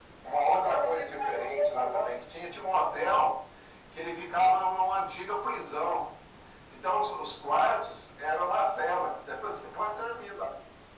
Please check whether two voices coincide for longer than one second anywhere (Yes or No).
Yes